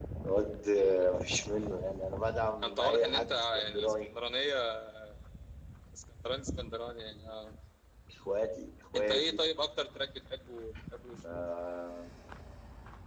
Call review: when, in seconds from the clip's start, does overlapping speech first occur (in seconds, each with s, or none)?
2.6 s